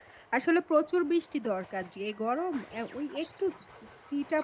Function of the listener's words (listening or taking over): listening